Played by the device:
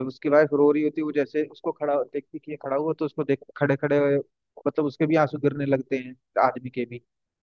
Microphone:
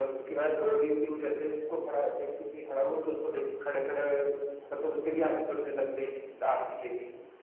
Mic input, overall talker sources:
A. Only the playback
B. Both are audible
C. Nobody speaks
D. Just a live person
A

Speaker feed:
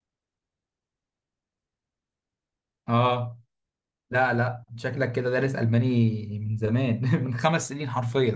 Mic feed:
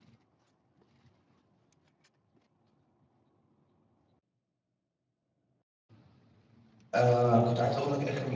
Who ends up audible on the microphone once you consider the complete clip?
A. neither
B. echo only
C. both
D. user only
D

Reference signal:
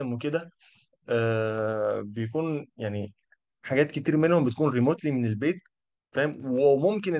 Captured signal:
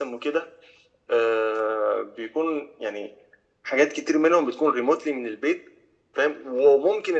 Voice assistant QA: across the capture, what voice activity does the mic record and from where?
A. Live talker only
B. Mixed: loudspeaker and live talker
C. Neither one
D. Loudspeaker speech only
D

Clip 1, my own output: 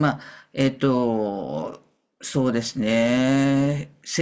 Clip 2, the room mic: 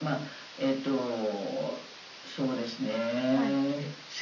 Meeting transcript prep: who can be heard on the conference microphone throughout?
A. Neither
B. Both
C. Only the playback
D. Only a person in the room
B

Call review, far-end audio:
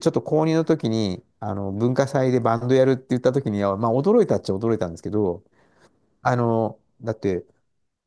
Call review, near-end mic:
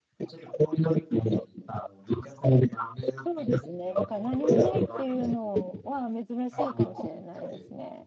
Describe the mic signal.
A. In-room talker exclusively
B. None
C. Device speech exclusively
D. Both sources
D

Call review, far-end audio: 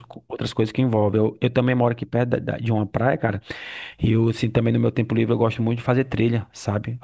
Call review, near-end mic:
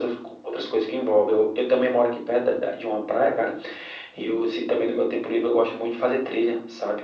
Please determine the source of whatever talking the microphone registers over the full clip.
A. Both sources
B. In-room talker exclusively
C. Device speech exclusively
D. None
C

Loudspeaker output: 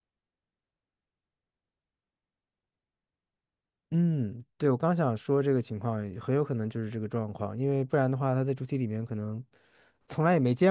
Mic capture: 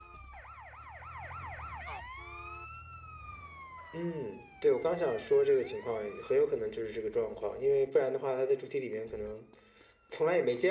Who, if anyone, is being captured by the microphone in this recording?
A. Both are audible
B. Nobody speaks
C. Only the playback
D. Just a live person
C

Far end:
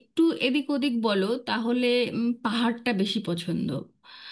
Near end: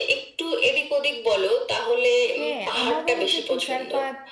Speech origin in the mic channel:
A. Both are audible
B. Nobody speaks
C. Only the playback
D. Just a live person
A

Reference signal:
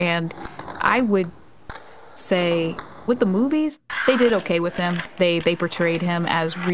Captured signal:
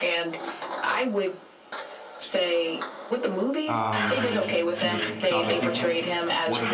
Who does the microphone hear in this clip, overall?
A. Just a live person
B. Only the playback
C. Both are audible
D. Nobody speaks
C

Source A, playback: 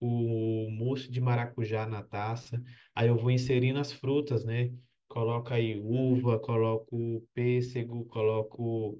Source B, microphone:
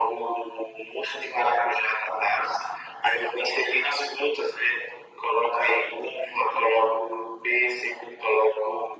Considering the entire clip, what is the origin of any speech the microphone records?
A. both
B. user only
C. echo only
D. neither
C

